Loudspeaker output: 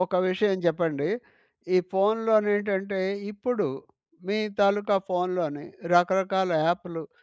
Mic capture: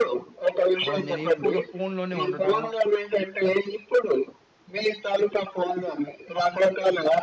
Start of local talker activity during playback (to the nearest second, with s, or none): 1 s